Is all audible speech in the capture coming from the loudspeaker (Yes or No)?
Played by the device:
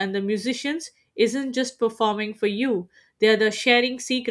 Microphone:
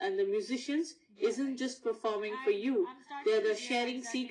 No